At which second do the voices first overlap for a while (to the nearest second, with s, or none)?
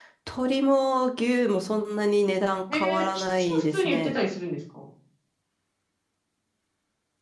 3 s